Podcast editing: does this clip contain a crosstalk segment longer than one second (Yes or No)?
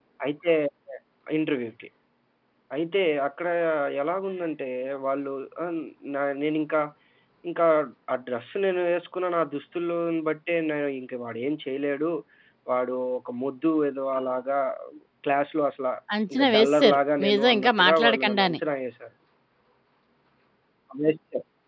Yes